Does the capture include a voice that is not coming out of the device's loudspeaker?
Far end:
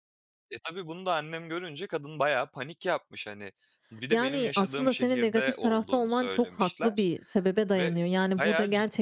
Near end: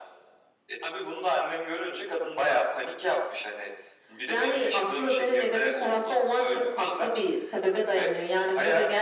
No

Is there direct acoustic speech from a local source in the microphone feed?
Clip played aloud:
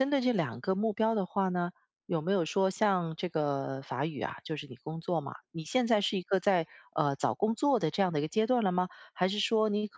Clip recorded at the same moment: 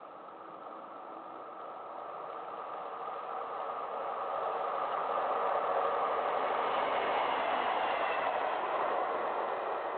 No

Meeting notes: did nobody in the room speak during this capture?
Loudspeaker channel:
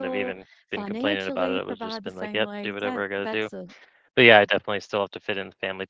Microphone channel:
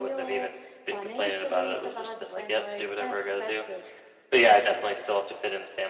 Yes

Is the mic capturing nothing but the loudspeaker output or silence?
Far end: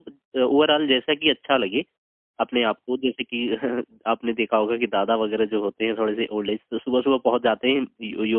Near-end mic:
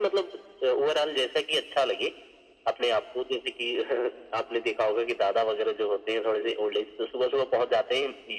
Yes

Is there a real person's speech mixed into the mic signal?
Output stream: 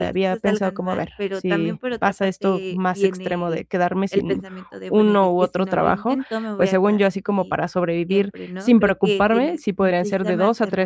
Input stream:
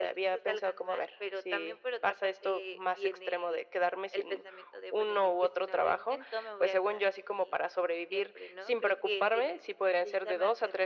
No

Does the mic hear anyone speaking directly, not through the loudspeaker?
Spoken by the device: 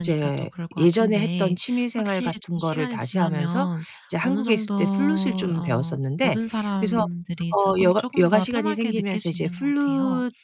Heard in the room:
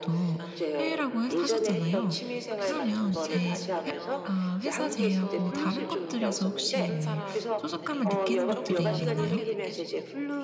Yes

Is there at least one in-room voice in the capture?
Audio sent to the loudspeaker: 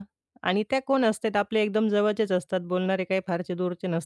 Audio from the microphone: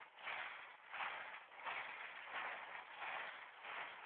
No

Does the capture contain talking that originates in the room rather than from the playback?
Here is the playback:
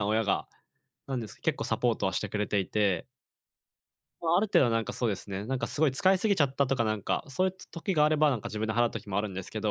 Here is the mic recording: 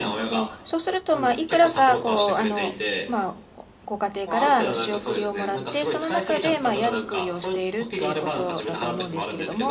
Yes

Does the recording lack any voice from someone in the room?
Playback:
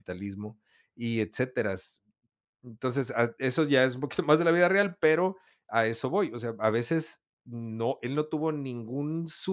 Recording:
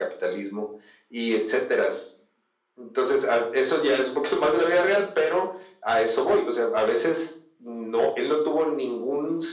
Yes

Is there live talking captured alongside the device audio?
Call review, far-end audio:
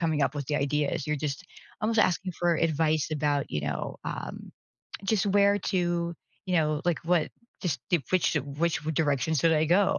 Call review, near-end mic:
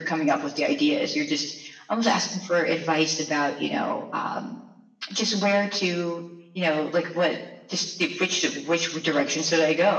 No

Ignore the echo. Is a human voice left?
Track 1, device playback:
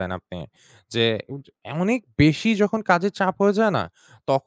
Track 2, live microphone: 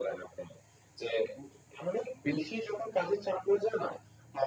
No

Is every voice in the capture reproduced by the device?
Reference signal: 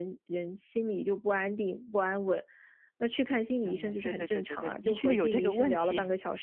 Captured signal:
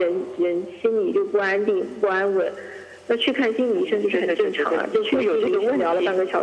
Yes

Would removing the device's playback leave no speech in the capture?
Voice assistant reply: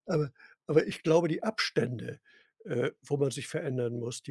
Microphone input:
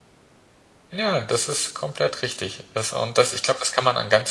No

